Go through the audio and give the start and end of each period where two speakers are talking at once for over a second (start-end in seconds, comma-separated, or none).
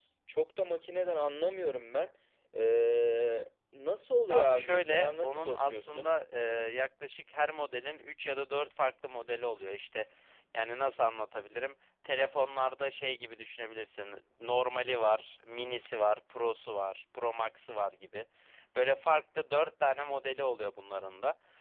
4.3-6.1